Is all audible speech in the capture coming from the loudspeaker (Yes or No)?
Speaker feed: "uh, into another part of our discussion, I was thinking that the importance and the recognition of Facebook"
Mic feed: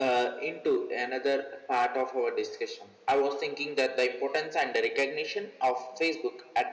Yes